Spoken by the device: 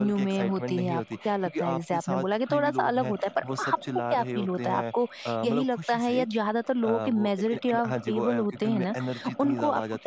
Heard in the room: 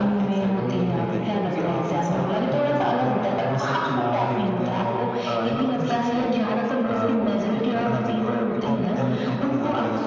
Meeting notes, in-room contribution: present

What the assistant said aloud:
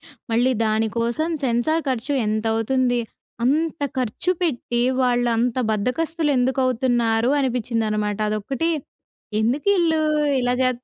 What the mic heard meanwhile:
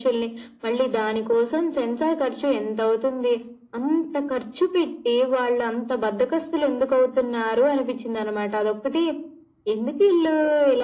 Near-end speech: none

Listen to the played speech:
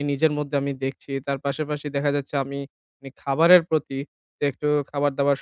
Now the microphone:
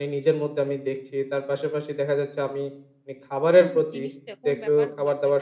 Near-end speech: present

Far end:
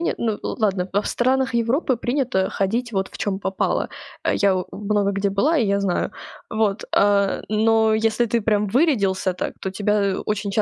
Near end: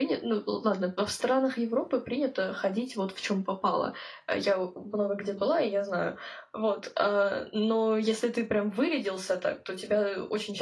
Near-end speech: none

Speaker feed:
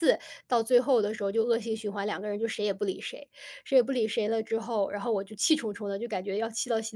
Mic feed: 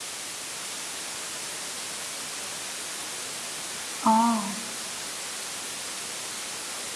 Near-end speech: present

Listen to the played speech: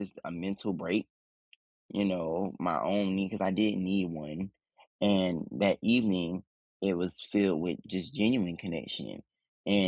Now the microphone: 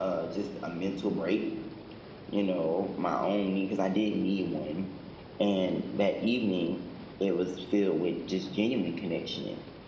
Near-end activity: none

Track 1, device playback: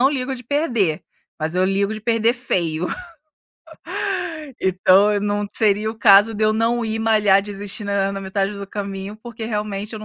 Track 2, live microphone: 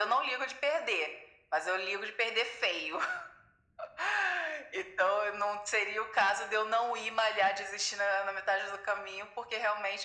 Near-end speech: none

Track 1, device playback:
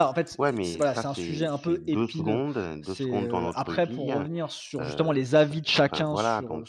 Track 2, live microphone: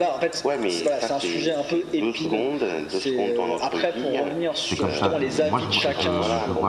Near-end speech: present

